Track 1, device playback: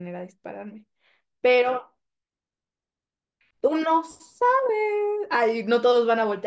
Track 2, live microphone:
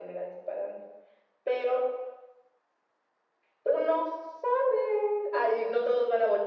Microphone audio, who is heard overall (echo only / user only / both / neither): echo only